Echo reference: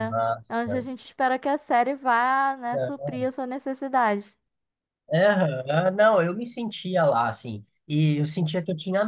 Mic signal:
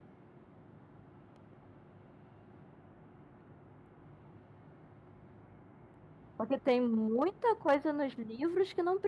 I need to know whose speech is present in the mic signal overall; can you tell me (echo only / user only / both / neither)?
user only